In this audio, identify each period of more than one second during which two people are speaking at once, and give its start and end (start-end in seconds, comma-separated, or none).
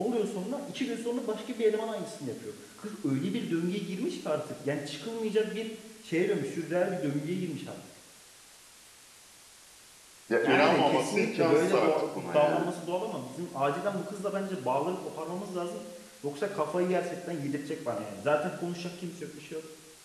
10.4-12.7